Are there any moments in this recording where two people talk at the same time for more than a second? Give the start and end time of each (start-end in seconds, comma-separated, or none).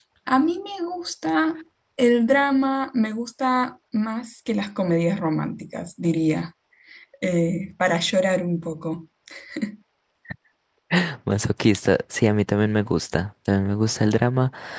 none